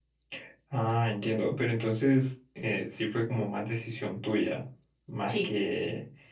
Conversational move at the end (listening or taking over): listening